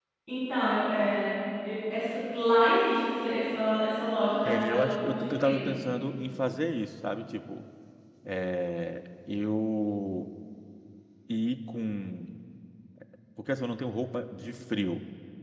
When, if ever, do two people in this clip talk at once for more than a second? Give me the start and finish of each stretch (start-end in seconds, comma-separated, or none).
4.4-5.7